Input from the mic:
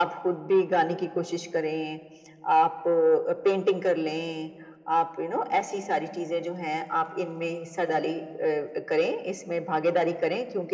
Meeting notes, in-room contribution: none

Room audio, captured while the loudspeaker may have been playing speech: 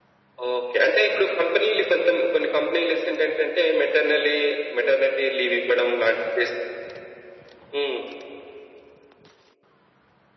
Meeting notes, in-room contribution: none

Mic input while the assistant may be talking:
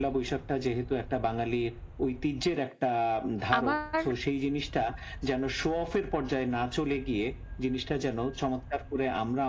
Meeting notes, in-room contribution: present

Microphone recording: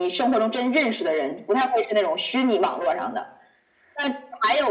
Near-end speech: none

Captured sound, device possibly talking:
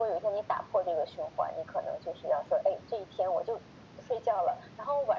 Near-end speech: none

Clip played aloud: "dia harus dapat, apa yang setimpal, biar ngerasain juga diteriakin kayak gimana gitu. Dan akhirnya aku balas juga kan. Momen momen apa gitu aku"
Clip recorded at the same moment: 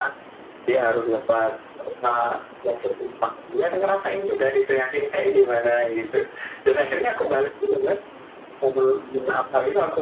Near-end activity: none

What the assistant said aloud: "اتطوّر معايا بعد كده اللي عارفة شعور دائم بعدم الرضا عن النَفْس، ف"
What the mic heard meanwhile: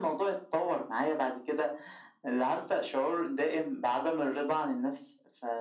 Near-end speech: none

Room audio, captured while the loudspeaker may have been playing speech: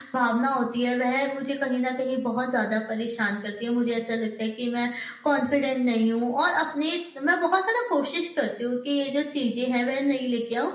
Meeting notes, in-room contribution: none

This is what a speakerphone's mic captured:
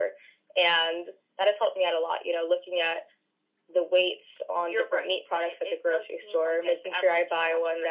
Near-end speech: none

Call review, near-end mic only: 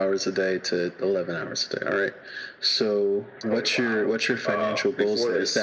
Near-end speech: none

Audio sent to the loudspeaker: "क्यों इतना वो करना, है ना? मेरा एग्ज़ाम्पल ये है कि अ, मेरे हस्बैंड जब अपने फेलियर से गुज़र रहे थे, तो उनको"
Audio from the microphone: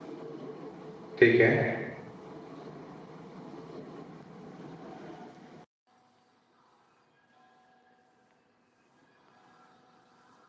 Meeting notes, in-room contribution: present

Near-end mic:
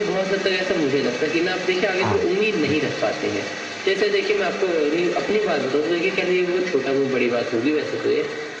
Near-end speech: present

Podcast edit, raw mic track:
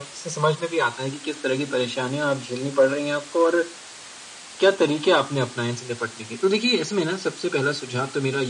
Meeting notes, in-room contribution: none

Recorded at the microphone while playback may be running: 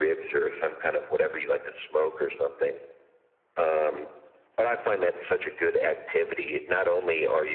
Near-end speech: none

